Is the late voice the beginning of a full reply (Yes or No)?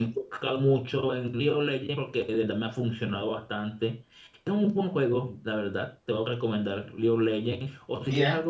No